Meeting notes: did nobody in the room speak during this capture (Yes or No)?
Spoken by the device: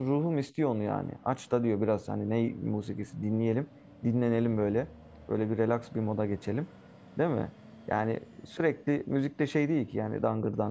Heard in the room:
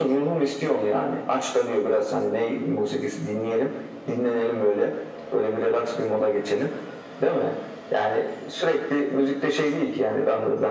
Yes